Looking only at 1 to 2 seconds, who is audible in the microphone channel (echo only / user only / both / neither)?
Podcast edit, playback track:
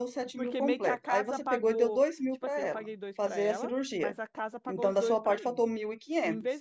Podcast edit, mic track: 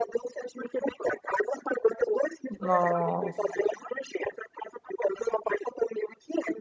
echo only